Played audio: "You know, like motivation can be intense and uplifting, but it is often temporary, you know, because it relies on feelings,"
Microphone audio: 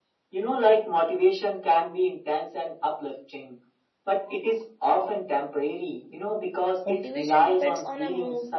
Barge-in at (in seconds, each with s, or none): 6.8 s